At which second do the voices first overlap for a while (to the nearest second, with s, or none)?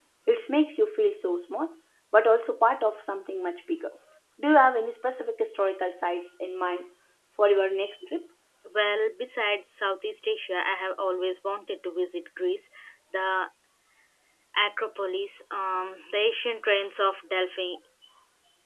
none